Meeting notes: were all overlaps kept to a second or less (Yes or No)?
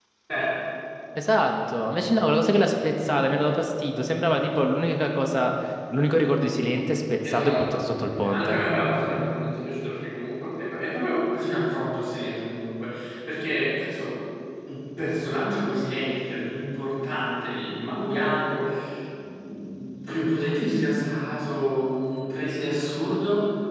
Yes